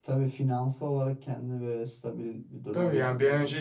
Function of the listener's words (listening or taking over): taking over